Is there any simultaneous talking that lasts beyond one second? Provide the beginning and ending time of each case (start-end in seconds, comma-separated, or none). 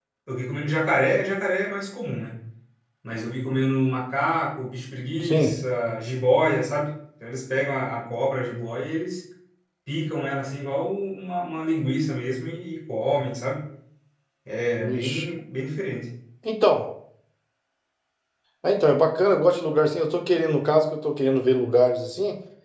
none